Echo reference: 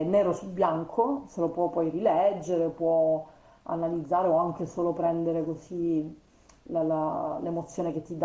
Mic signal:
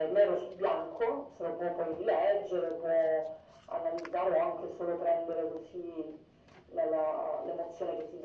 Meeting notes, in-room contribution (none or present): none